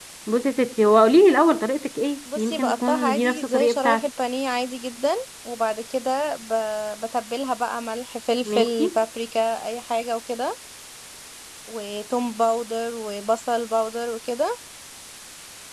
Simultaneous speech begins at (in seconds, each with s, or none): 2.4 s